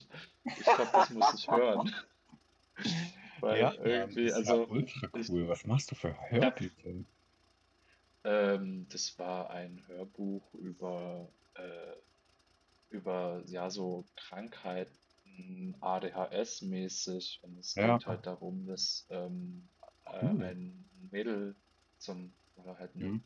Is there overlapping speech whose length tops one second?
Yes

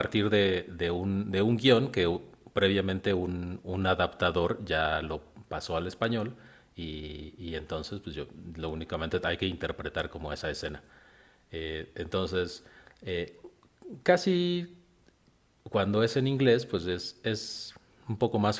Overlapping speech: No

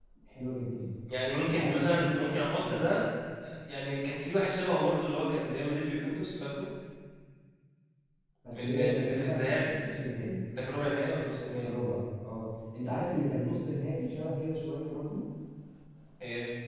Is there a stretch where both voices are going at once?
Yes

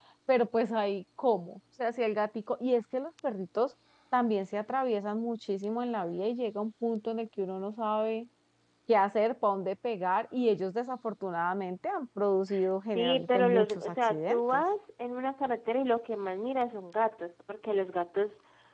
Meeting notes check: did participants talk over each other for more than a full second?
Yes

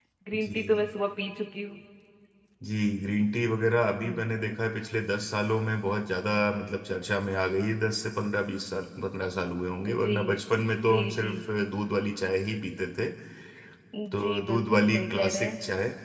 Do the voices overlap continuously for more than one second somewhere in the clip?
Yes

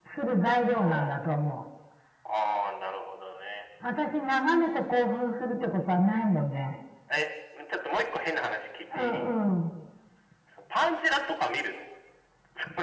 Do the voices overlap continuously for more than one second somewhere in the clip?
No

